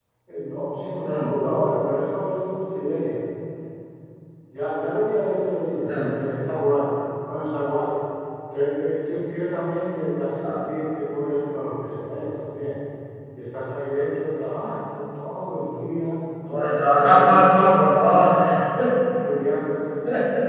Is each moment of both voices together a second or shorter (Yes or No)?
No